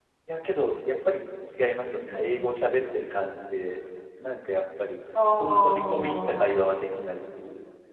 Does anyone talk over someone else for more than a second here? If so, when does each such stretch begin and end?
5.4-6.9

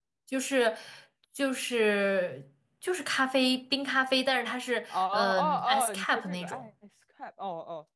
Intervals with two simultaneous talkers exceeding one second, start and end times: 4.9-6.7

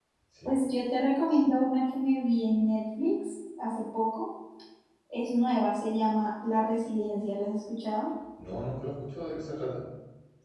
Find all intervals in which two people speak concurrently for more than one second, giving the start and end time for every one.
none

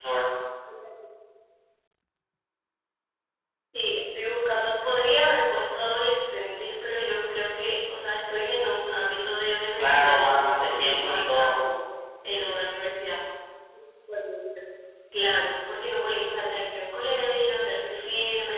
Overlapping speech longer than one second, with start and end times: 9.8-11.5

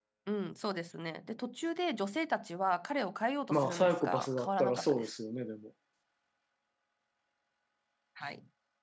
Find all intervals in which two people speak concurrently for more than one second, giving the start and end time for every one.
3.5-5.2

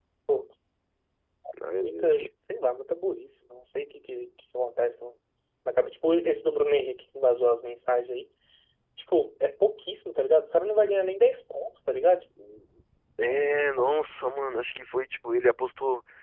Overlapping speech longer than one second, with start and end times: none

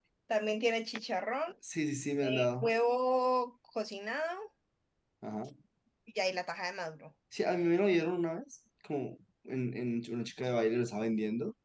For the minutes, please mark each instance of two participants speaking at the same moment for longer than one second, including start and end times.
none

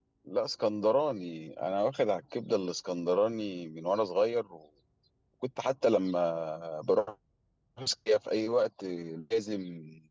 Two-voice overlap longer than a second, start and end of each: none

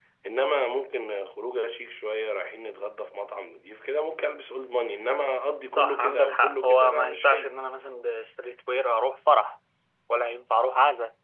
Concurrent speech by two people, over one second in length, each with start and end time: 5.7-7.5

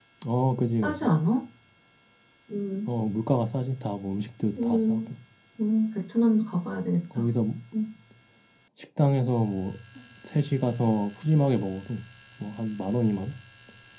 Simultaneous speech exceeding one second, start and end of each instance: none

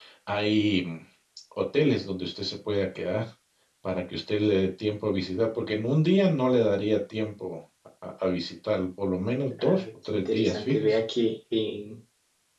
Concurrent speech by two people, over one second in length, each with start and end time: 9.6-11.0

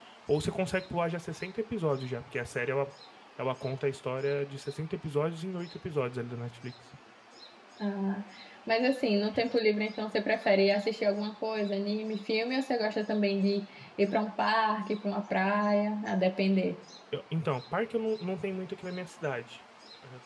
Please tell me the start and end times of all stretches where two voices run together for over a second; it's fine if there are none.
none

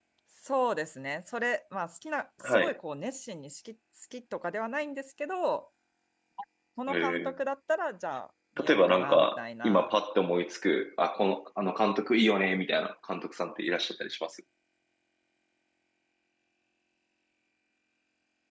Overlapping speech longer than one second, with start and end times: 8.7-9.9

